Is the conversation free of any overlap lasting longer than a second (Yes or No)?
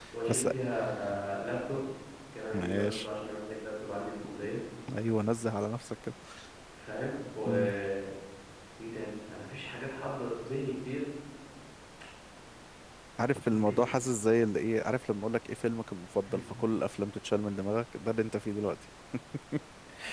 Yes